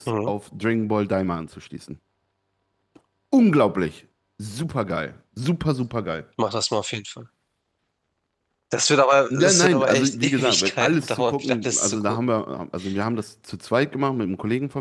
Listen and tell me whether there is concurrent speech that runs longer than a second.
Yes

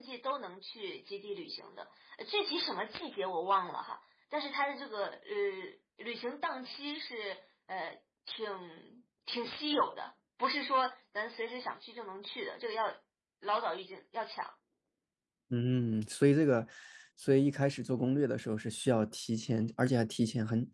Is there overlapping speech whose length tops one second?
No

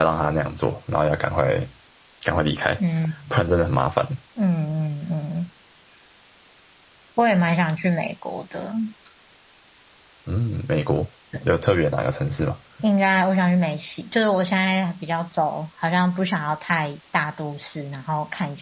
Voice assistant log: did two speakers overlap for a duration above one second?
No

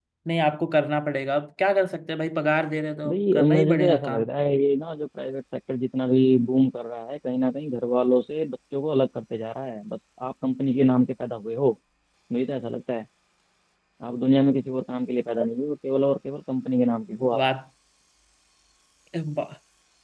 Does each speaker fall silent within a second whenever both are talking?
No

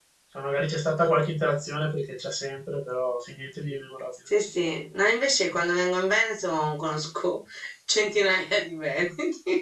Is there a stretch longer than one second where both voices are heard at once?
No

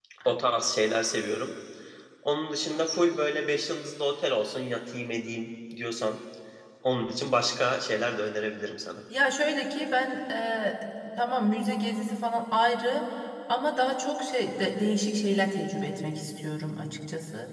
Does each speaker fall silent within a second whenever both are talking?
Yes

